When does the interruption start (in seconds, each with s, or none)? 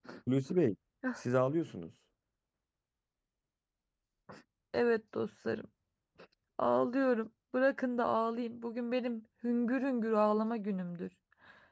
none